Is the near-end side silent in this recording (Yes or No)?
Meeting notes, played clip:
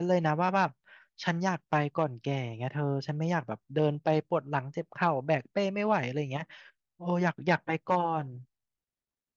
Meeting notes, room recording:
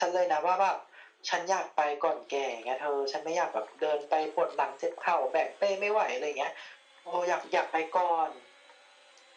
Yes